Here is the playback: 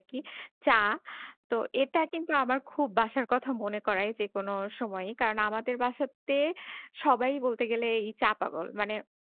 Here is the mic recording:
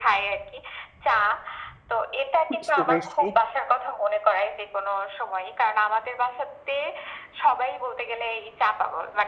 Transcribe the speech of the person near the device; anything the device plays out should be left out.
বুঝতে পেরেছি।

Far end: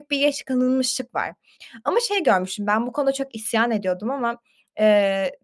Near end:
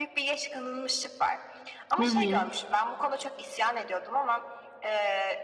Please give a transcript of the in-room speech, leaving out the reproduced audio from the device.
Hı hı.

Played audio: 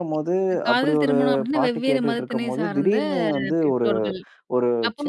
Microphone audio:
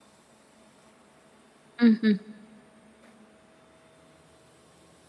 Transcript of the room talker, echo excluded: ம், ஹ்ம்.

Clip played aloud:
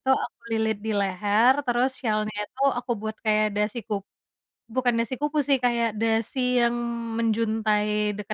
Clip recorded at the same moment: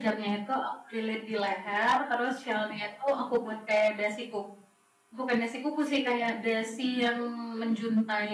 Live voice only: none

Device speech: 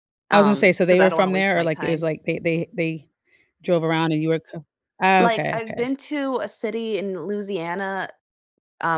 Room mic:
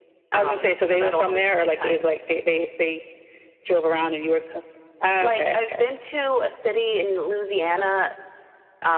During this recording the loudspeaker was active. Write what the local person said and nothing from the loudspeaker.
none

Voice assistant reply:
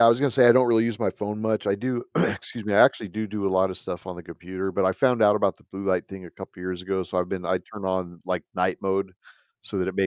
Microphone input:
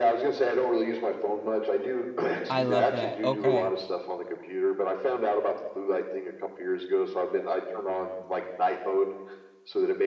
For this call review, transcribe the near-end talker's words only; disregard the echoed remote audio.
I love that, okay.

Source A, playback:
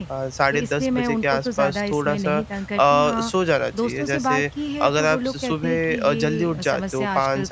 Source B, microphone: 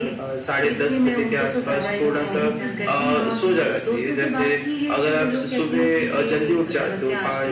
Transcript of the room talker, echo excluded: गौर कर पा रही हूँ कि होता क्या है

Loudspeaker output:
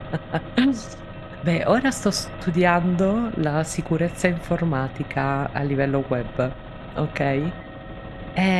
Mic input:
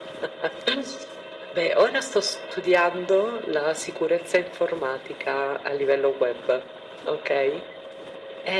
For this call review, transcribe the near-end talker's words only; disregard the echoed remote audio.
none

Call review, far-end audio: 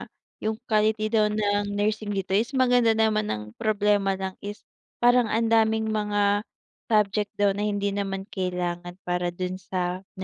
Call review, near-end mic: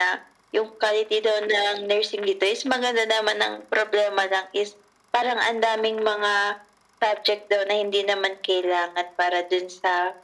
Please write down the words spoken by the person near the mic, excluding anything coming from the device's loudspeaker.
none

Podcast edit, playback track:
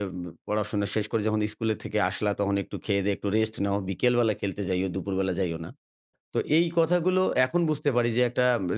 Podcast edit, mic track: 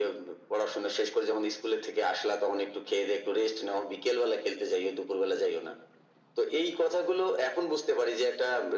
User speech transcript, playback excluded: none

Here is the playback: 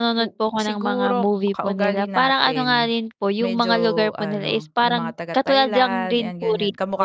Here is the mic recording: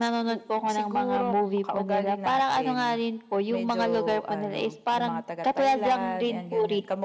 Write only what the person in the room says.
none

